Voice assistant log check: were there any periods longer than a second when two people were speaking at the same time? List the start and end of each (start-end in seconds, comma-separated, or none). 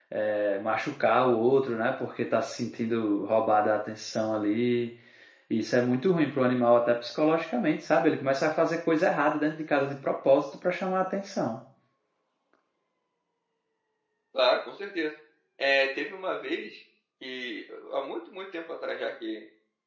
none